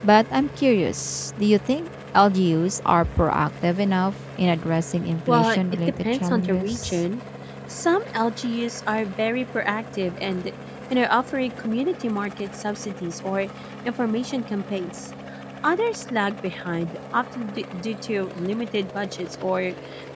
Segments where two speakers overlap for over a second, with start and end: 5.3-7.0

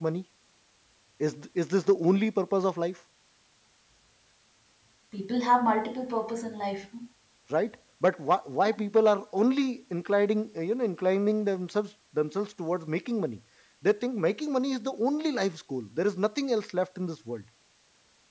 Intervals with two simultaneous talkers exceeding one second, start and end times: none

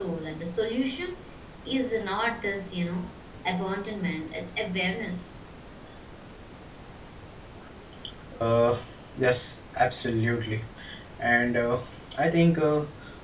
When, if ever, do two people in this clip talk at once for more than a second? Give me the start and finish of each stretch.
none

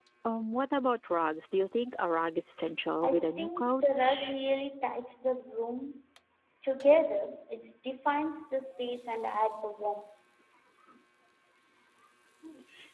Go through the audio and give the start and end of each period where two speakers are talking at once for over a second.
3.0-4.3

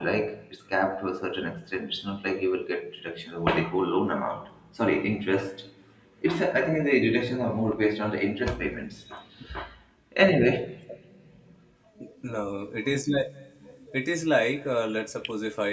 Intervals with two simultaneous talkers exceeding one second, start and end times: none

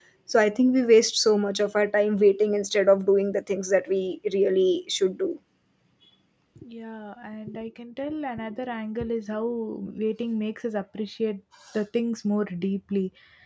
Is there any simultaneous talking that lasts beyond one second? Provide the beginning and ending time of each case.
none

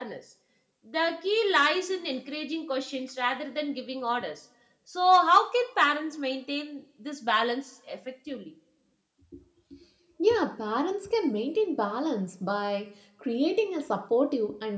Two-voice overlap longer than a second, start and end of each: none

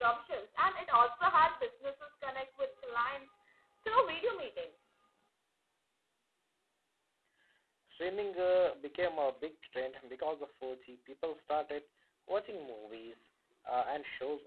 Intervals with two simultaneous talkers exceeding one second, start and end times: none

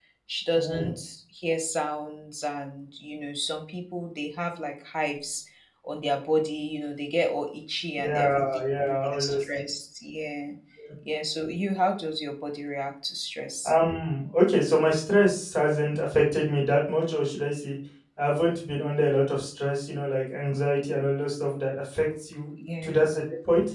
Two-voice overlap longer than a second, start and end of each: 8.0-9.6

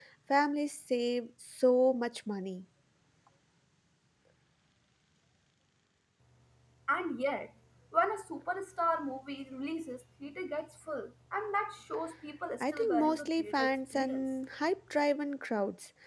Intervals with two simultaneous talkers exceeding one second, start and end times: 12.6-14.2

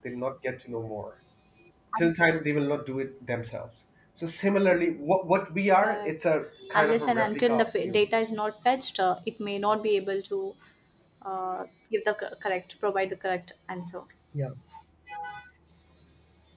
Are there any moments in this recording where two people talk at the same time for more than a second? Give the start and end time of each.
6.7-8.1

